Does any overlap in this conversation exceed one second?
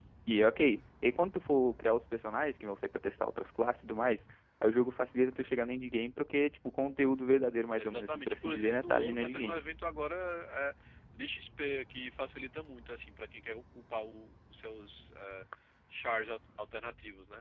Yes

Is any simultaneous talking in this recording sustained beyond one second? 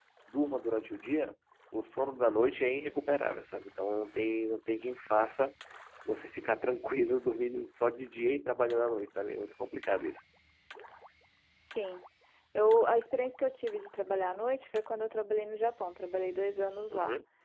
No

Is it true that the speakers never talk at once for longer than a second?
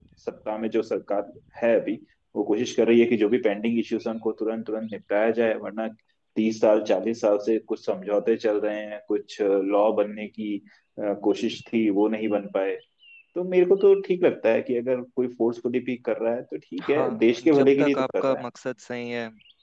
No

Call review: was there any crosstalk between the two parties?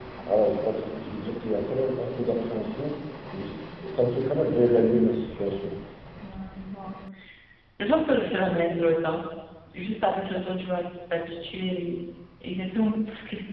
No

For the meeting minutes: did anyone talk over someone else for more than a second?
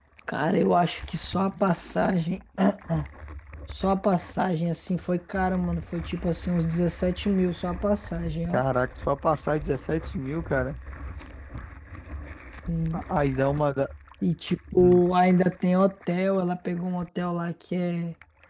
No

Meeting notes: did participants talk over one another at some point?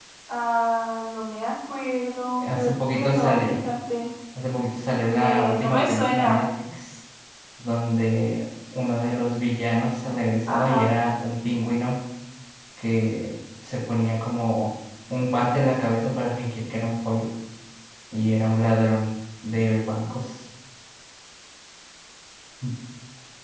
Yes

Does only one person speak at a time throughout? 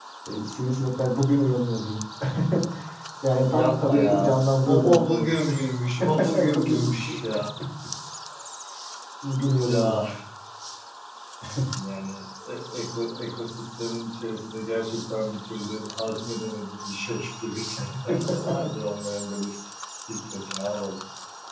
No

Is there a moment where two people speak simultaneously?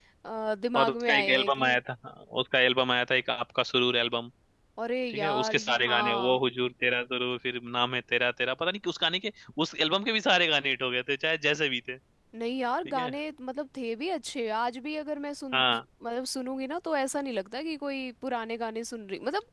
Yes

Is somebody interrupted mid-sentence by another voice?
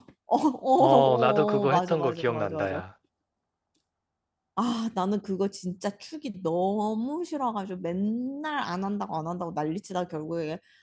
Yes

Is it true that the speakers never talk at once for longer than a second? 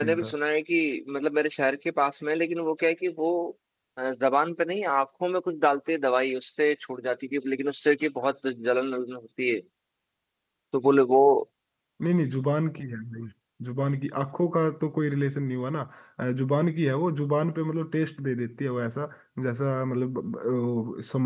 Yes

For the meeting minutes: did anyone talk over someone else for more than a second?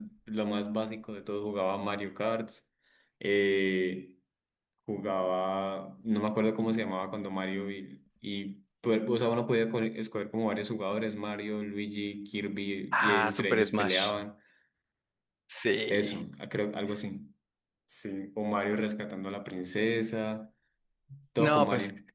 Yes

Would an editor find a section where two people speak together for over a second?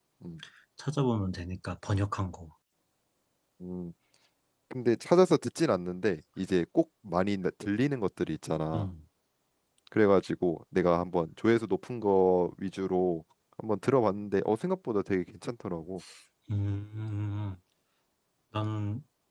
No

